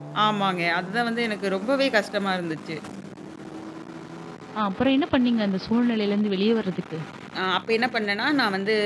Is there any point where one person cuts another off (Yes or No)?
No